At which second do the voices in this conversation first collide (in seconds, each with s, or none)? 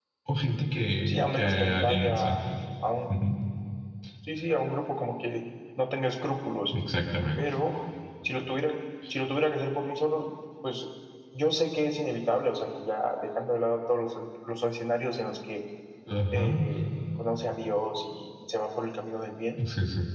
1.1 s